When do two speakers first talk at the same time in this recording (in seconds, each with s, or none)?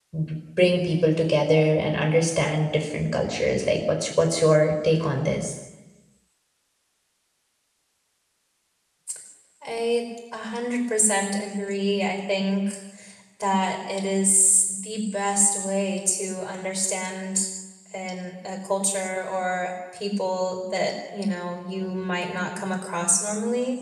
none